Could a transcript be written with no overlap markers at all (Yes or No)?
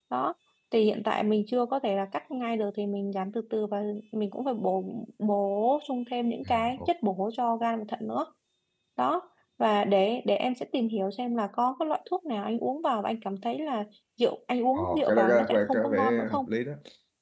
No